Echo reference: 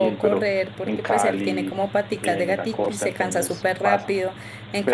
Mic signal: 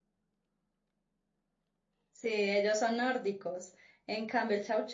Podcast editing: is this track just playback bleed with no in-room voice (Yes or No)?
No